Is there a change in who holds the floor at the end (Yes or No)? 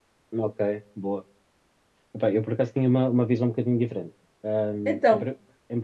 No